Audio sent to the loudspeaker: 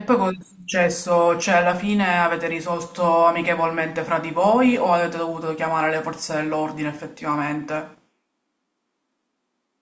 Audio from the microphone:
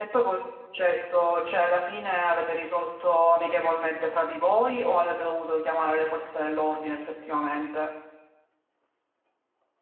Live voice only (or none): none